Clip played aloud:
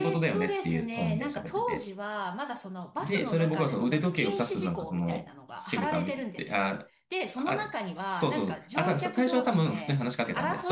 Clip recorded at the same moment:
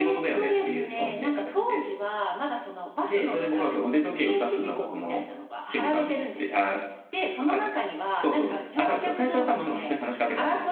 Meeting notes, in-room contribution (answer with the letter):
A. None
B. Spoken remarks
A